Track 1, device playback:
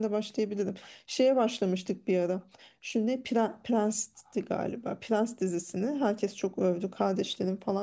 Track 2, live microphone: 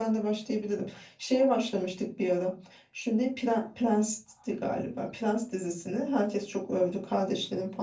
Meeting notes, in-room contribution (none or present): none